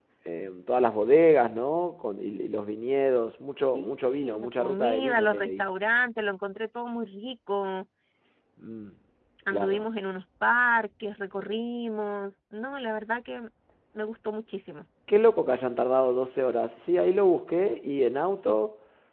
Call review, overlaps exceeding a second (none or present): present